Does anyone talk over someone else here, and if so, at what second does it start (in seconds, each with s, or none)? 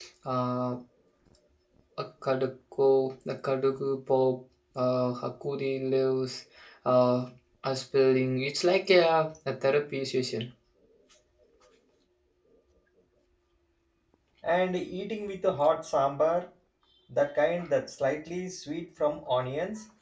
none